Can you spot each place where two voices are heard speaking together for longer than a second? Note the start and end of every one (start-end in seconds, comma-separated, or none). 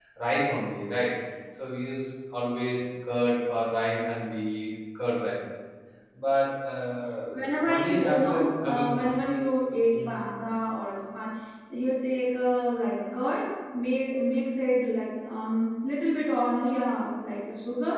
7.6-9.1